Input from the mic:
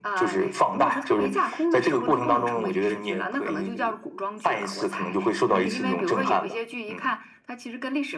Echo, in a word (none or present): present